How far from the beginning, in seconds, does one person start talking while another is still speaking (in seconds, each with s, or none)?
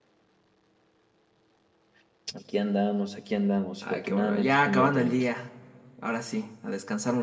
3.8 s